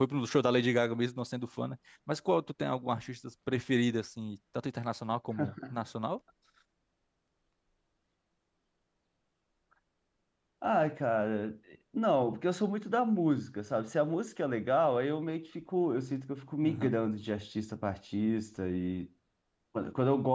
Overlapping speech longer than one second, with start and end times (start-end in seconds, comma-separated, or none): none